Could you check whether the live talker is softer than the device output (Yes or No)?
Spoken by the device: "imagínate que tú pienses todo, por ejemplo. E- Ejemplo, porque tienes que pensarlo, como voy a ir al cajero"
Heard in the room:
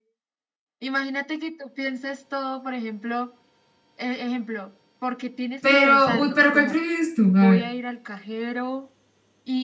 No